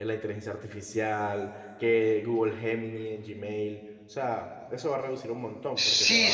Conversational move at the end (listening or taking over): taking over